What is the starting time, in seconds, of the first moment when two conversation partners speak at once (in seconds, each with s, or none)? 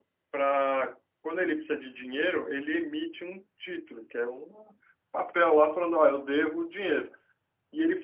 none